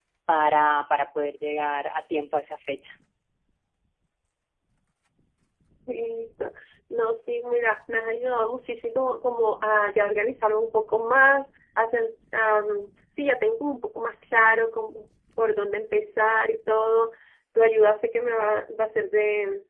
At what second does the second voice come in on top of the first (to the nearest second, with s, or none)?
none